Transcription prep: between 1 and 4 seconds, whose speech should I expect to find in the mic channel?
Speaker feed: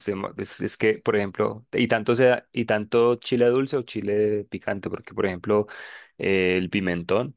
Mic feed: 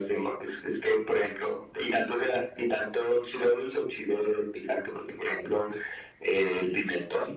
echo only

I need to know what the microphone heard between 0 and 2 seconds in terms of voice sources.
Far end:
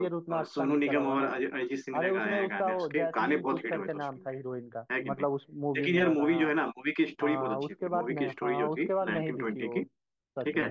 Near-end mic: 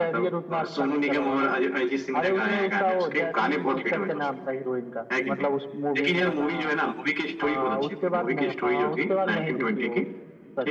echo only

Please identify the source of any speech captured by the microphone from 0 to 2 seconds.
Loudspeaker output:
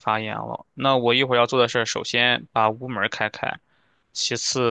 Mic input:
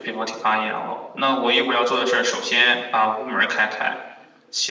echo only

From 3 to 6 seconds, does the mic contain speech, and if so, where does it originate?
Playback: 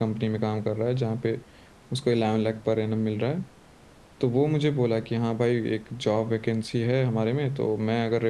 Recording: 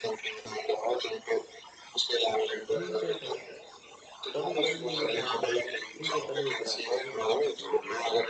both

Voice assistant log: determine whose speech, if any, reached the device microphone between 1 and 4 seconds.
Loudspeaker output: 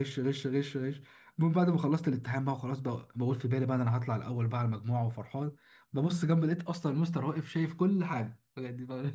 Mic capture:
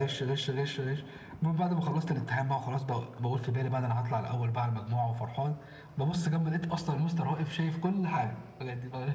echo only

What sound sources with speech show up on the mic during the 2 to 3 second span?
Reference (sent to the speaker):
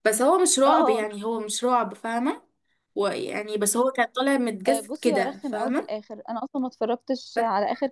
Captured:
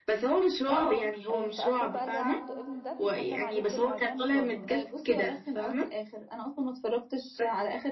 both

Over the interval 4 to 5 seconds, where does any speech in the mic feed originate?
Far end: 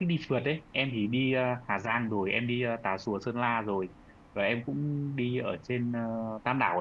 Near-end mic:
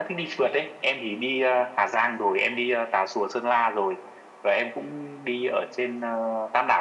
echo only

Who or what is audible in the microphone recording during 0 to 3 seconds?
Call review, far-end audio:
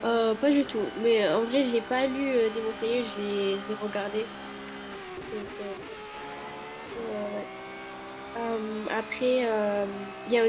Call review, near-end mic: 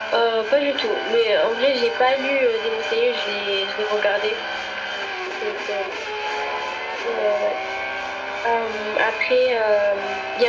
echo only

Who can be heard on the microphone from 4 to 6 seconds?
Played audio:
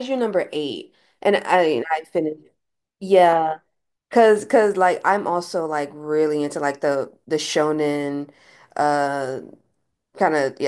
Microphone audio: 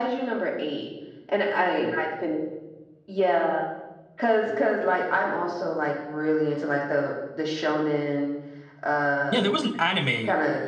echo only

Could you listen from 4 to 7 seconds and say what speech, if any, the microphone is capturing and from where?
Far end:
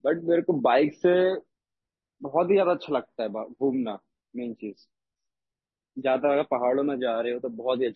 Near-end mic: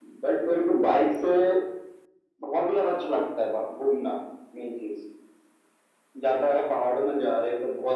echo only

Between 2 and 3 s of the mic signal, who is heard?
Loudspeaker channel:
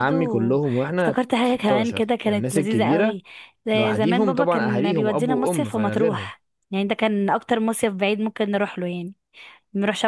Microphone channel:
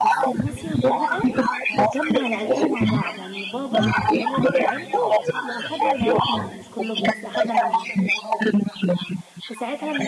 both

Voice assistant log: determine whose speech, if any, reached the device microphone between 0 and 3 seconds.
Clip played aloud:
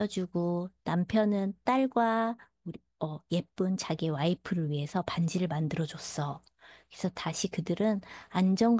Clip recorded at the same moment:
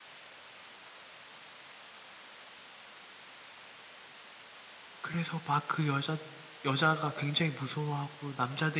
neither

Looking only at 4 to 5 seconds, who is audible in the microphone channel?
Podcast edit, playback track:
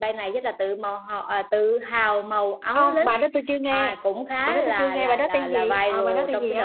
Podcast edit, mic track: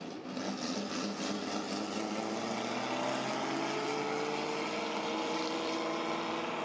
neither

